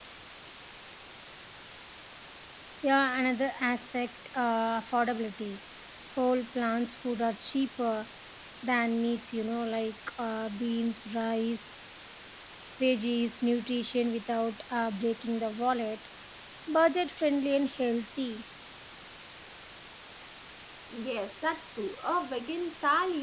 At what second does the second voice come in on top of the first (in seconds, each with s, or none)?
none